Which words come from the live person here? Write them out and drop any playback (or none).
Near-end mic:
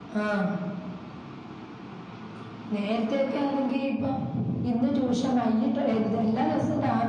none